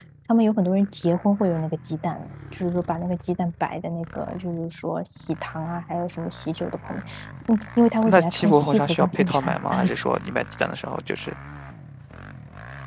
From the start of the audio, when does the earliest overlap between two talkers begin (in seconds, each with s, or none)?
8.0 s